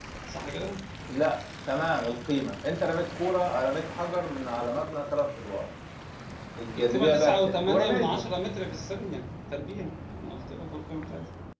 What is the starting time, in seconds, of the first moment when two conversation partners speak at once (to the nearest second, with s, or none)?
7 s